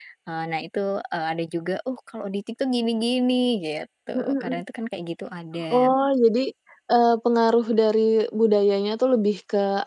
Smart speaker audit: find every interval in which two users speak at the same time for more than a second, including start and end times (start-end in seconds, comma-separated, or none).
none